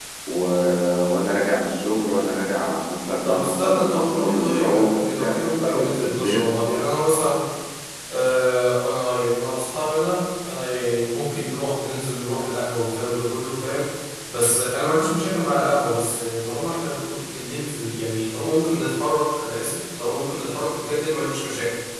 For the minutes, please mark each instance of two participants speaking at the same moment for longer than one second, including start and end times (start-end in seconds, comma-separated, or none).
3.2-6.4